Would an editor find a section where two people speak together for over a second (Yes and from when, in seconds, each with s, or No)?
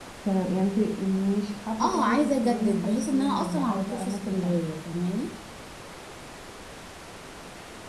Yes, from 1.8 s